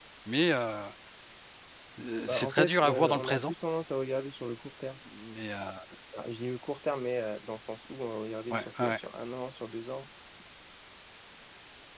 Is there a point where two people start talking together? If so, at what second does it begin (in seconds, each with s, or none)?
2.3 s